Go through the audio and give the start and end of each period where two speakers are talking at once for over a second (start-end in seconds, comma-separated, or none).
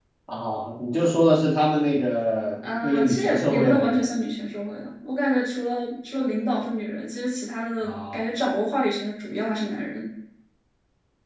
2.8-4.1